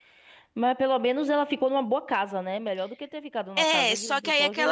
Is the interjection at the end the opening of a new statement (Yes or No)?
Yes